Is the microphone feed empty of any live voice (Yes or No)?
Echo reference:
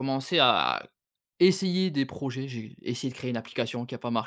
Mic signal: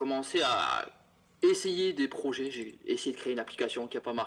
Yes